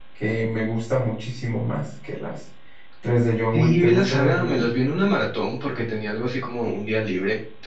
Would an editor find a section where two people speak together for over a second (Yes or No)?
Yes